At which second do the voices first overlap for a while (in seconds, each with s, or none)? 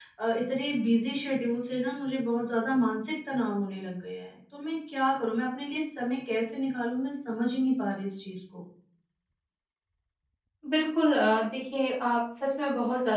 none